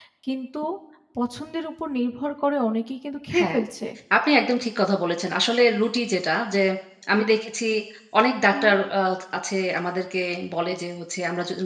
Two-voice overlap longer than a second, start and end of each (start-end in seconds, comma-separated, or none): none